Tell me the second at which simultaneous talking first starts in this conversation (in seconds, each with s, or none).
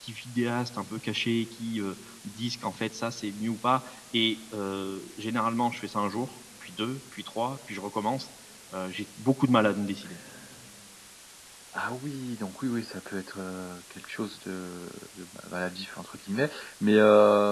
none